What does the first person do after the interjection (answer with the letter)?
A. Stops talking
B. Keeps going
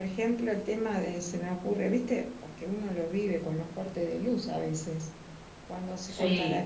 B